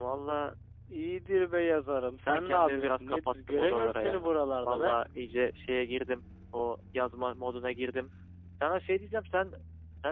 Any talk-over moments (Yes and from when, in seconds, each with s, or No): Yes, from 2.3 s